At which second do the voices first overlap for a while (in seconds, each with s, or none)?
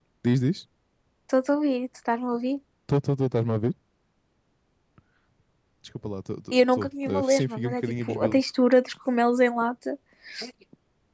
6.5 s